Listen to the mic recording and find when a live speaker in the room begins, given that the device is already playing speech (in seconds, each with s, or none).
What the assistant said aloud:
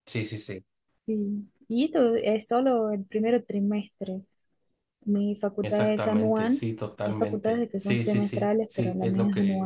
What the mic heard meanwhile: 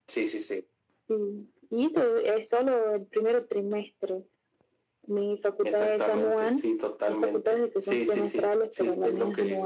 none